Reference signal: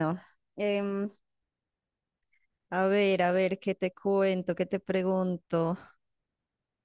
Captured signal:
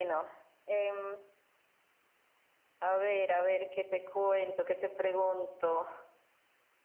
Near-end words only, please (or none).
none